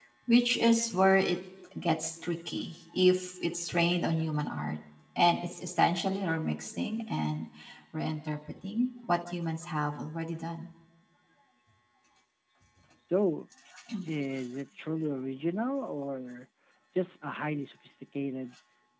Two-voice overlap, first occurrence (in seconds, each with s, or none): none